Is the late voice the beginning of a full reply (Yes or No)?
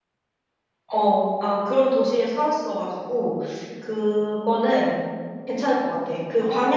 No